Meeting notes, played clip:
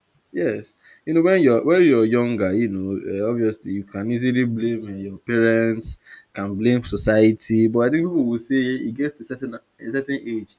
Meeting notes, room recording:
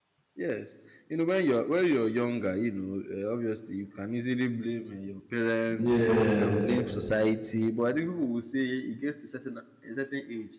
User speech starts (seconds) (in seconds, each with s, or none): 5.8 s